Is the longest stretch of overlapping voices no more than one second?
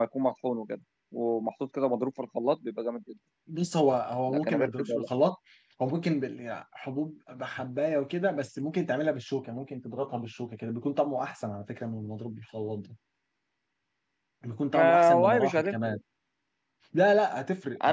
No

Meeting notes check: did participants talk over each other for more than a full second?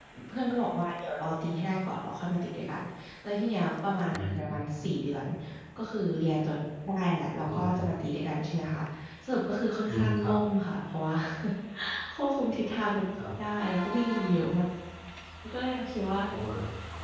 No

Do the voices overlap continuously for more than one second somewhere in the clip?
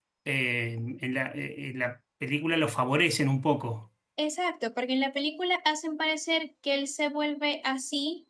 No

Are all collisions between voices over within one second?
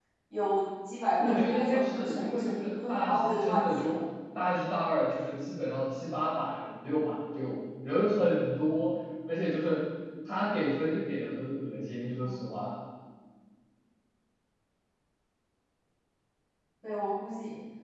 No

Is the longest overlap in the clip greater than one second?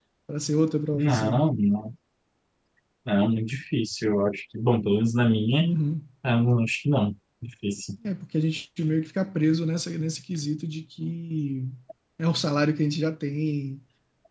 No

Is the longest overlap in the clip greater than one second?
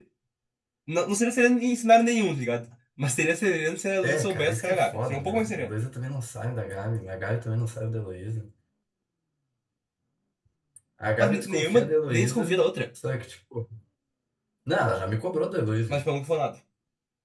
Yes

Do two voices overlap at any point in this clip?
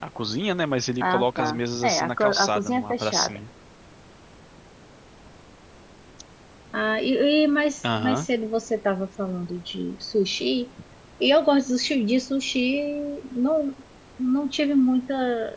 Yes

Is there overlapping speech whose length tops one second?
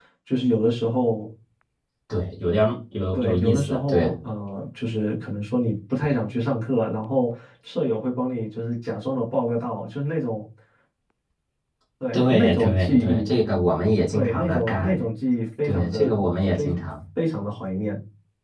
Yes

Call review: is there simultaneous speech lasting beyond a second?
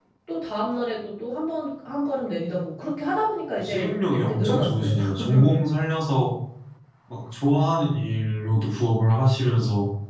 Yes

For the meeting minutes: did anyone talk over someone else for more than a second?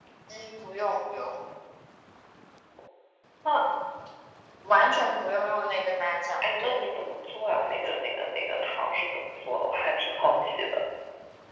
No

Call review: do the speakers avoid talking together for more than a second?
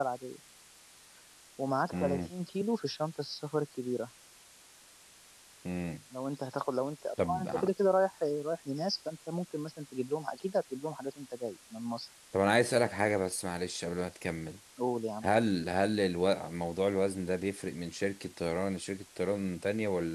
Yes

